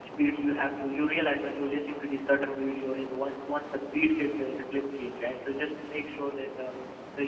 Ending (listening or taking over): listening